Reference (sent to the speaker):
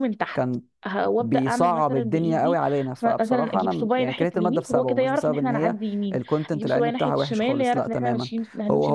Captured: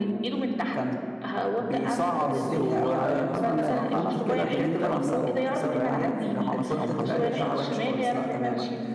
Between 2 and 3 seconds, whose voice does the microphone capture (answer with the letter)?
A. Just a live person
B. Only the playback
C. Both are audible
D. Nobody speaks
C